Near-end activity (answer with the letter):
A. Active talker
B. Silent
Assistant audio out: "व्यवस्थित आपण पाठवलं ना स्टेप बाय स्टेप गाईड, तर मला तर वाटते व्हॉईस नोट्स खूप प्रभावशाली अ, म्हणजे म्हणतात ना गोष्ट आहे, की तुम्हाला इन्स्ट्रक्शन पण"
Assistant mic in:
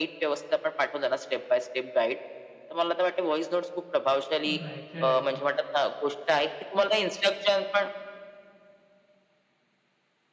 A